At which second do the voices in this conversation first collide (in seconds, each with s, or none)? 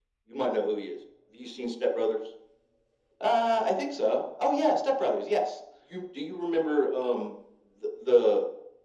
none